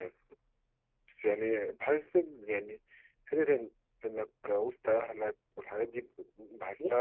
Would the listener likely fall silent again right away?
No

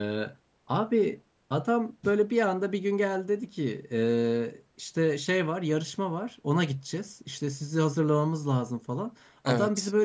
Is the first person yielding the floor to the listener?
No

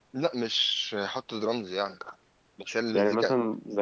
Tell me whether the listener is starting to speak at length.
Yes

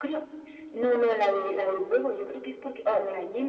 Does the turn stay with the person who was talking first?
Yes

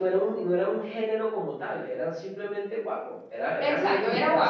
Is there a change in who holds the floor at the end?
Yes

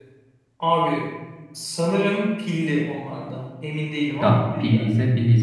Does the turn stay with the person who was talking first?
No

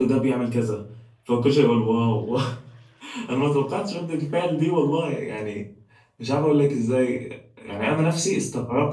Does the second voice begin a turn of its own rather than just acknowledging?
No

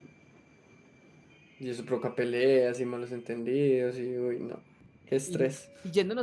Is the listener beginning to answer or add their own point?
Yes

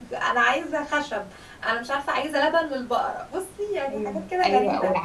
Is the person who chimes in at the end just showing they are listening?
No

